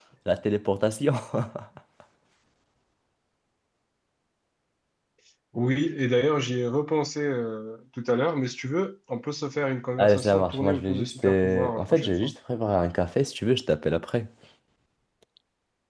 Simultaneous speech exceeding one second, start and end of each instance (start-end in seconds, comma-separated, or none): 10.0-12.3